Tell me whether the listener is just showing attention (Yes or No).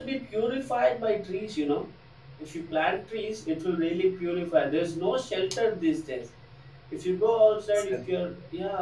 Yes